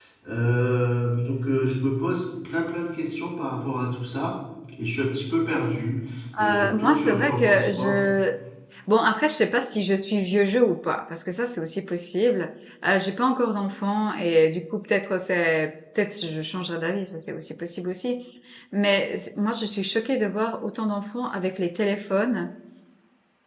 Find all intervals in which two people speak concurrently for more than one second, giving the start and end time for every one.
6.4-8.0

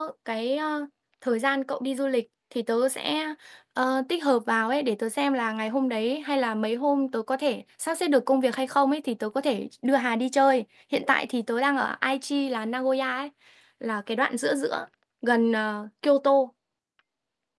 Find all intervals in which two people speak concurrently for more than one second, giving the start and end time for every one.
none

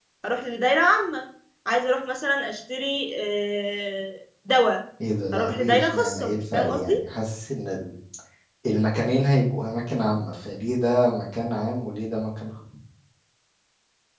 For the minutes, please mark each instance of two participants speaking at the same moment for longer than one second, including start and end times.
5.3-7.0

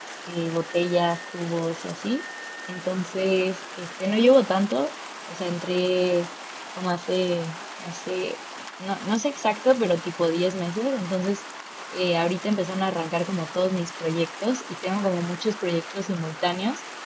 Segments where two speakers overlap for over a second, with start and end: none

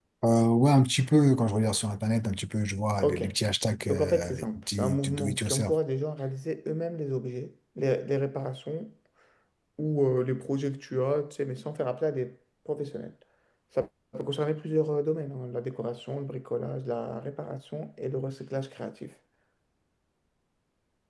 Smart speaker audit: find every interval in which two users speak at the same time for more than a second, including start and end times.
3.9-5.7

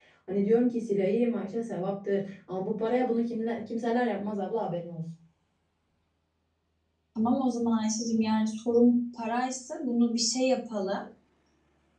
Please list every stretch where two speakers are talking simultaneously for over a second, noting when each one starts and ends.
none

